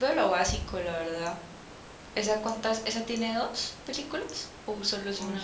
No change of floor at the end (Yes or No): No